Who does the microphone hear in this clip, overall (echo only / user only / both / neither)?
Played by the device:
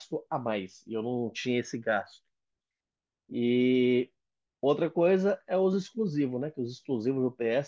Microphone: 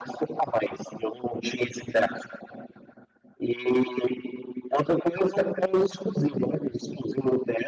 echo only